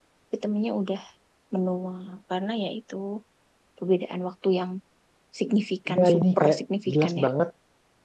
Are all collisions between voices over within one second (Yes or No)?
No